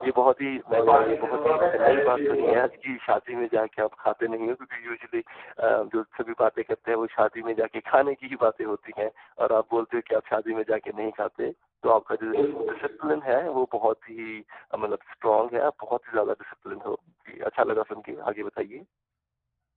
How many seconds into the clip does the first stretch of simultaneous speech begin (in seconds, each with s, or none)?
0.7 s